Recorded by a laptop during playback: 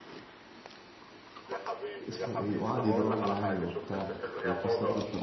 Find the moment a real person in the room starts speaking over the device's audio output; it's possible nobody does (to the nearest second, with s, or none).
2 s